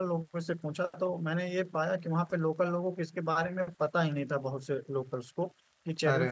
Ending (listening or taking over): listening